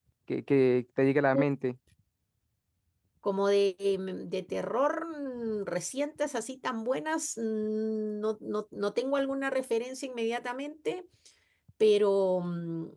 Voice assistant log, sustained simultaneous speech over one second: none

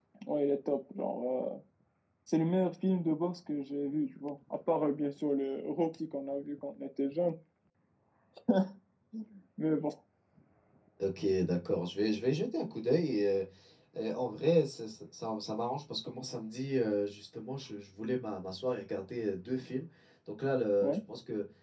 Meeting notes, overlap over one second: none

